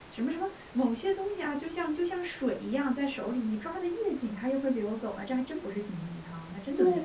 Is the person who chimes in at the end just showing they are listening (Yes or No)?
No